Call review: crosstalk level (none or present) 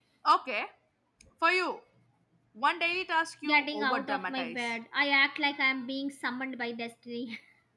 present